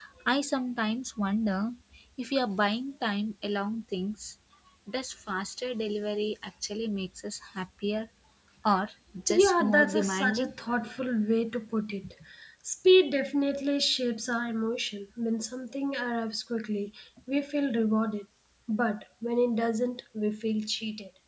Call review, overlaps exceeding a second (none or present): present